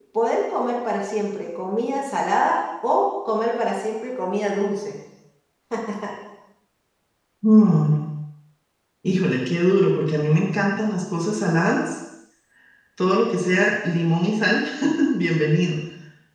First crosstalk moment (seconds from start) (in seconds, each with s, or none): none